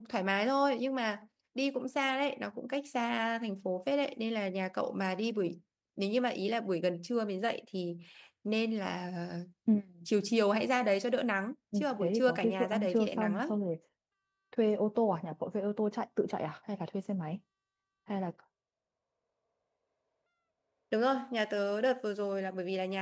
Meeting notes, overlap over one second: present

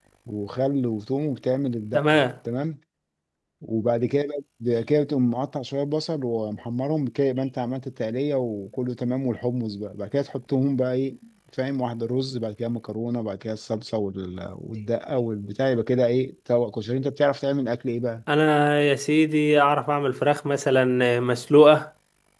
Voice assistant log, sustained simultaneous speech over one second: none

